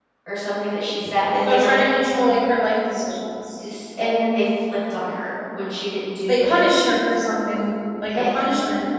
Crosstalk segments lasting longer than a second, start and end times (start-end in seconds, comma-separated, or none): none